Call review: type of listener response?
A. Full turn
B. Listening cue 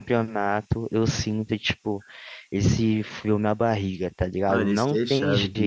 A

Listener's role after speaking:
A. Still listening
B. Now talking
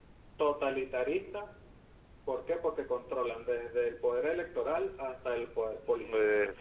B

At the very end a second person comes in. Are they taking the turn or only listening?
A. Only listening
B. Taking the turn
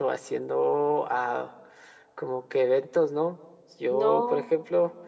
A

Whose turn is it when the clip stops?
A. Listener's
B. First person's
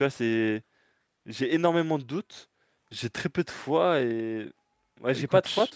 A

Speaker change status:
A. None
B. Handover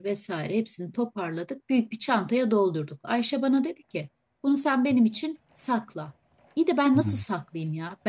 A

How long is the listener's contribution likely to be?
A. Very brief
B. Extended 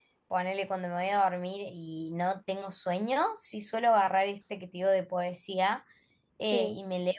A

